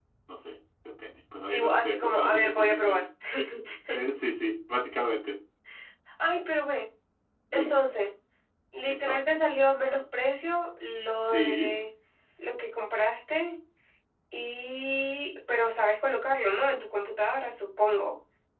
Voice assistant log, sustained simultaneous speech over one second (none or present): present